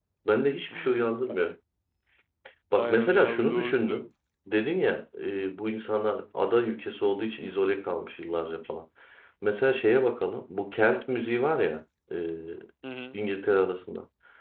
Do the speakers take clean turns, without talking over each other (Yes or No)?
No